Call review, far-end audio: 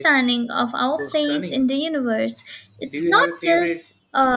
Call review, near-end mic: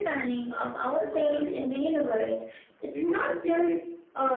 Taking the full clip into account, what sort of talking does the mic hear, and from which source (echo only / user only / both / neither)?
echo only